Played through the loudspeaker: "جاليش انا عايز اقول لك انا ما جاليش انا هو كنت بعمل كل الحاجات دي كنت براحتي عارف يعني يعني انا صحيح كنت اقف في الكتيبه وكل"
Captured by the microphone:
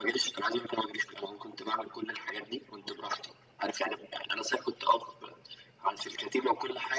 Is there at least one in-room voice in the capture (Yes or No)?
No